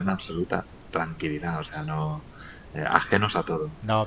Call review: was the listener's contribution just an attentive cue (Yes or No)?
No